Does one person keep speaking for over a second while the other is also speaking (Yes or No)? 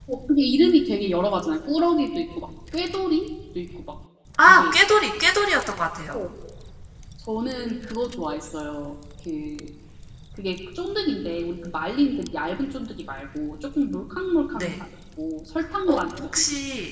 No